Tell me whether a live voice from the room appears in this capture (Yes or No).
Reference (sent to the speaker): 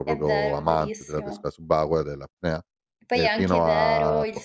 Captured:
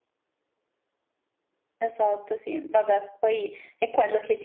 Yes